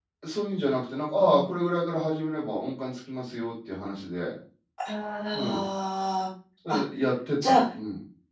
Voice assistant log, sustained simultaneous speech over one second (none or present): none